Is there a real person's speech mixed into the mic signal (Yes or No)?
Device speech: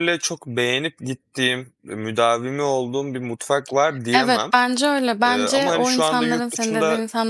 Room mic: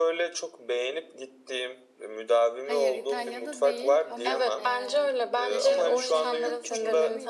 Yes